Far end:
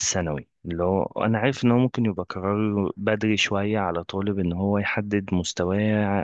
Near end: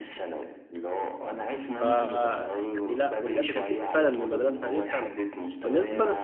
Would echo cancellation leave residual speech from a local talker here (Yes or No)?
Yes